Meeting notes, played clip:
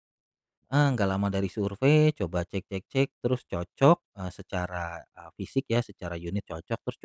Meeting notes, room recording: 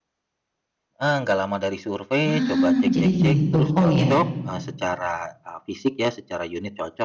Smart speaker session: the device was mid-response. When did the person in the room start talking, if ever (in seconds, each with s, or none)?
2.3 s